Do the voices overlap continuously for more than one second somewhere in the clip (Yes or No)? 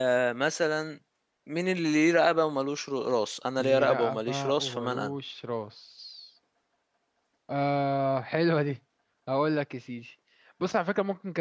Yes